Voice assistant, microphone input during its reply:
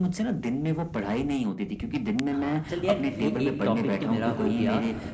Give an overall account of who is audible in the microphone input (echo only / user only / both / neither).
both